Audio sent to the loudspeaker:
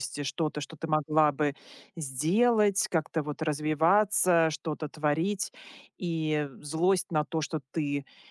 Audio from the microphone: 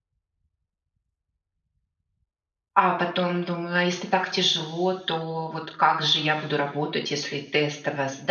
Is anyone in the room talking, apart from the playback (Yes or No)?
Yes